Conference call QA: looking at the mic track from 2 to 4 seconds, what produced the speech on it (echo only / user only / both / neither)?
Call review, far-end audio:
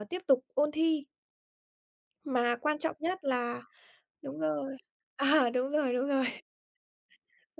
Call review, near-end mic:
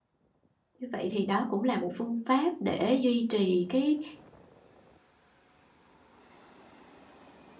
user only